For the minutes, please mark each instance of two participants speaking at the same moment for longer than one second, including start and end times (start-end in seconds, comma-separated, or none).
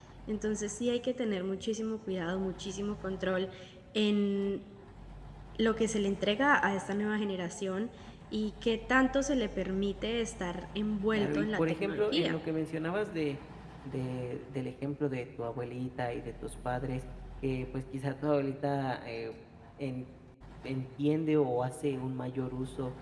11.1-12.4